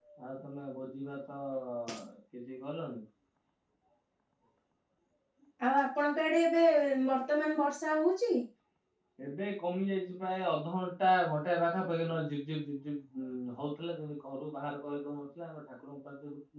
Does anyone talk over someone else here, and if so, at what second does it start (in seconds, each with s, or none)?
none